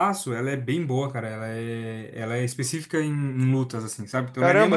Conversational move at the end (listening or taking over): listening